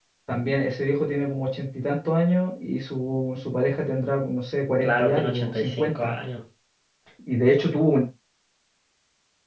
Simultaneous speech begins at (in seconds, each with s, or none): 4.8 s